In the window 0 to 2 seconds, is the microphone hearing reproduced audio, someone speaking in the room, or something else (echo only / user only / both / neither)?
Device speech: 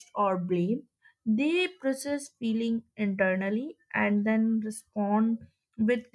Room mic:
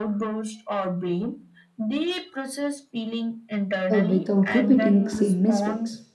echo only